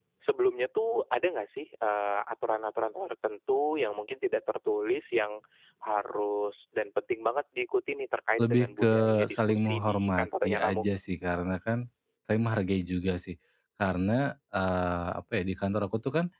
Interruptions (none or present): present